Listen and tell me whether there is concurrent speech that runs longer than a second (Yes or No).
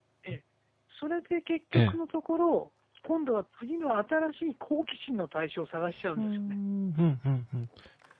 No